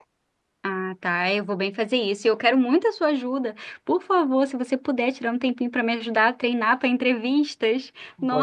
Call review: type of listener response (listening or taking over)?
taking over